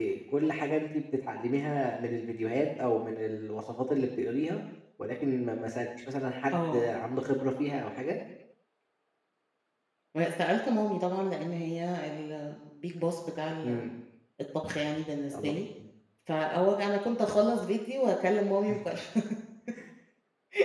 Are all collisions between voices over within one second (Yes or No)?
Yes